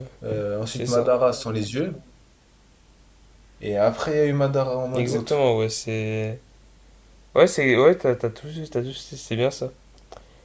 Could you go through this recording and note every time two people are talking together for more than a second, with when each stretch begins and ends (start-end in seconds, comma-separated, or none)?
none